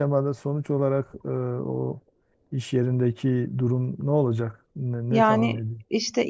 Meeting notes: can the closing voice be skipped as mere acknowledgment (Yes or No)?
No